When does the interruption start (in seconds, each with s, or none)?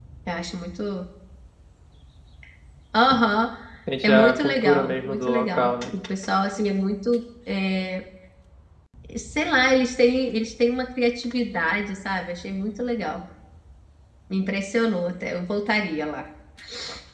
4.0 s